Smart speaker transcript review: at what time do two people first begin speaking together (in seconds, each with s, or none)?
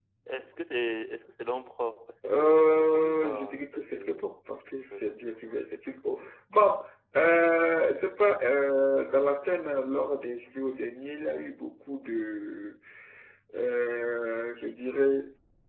2.2 s